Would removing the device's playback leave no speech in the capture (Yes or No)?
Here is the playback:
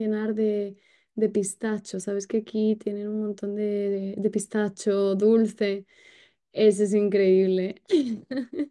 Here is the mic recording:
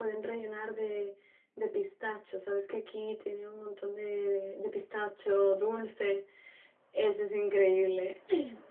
Yes